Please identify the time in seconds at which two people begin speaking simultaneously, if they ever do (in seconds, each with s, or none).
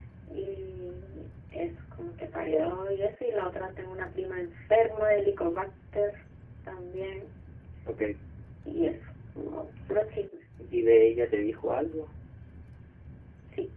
none